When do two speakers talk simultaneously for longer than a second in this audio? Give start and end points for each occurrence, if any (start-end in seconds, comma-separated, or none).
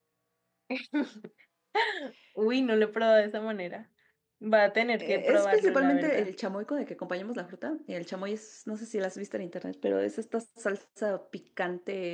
5.0-6.3